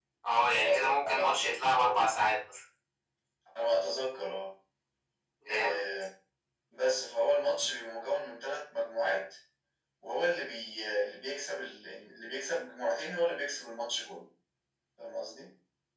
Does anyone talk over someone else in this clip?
Yes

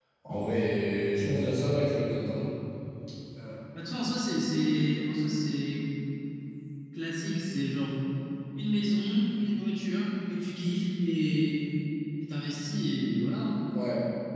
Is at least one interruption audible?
No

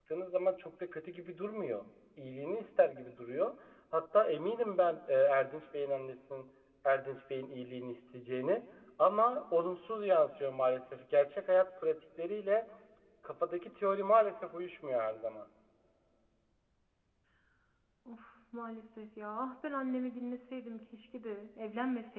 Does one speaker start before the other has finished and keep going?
No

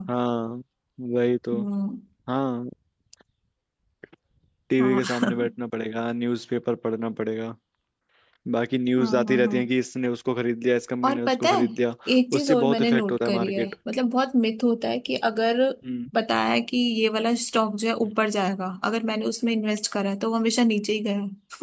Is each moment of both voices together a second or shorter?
No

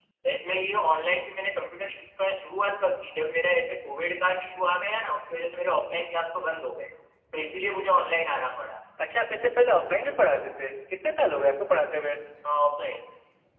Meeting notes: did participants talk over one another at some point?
No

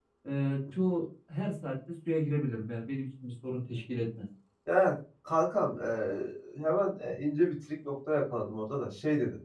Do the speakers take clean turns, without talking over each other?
Yes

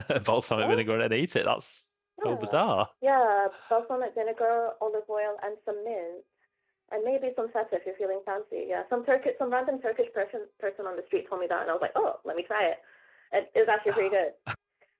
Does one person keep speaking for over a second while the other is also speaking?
No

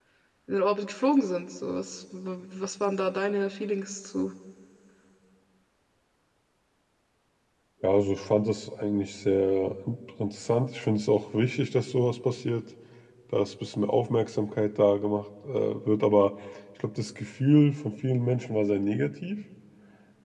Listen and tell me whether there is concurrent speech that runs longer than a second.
No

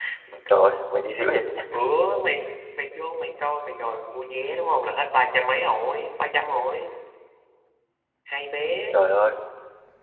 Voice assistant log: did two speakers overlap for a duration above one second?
No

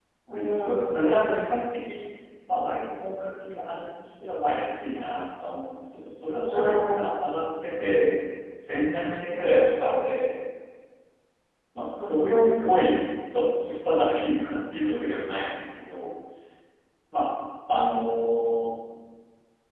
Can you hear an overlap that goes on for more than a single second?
Yes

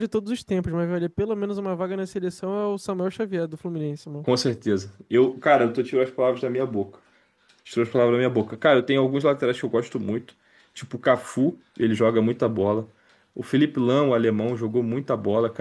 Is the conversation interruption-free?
Yes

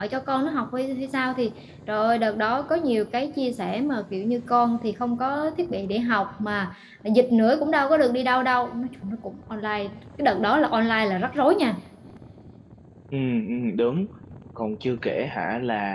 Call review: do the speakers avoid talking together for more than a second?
Yes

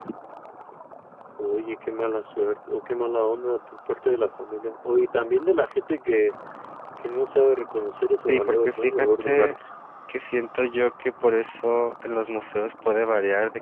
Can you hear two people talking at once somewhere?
Yes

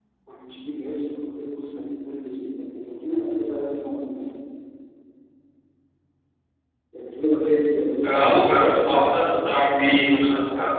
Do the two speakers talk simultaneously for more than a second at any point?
No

